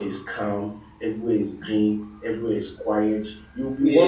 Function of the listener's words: listening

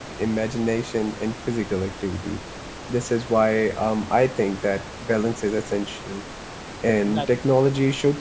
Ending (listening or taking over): listening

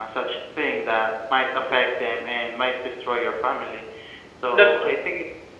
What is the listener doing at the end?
listening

